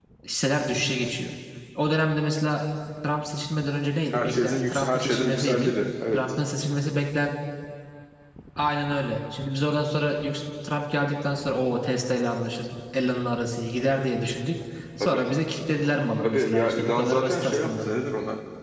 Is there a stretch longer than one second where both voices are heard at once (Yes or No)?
Yes